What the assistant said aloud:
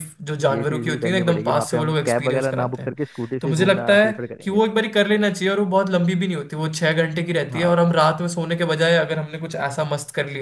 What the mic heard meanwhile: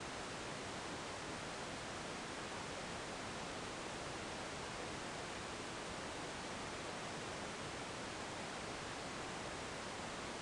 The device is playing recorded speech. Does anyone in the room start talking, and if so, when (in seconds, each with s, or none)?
none